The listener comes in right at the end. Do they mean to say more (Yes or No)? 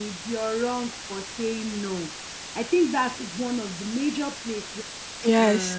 No